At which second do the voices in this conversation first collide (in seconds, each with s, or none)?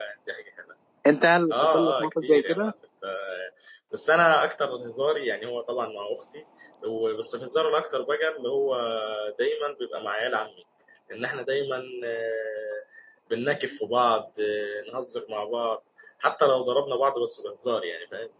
1.5 s